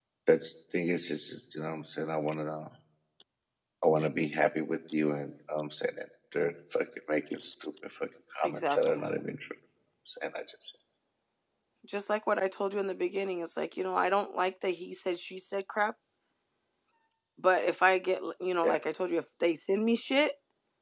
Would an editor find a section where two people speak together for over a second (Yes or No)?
No